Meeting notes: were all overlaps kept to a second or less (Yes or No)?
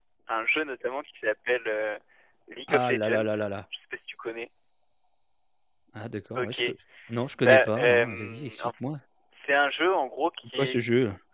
No